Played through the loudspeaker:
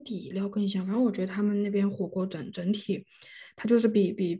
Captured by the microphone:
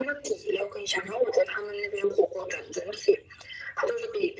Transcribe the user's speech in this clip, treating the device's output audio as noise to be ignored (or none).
none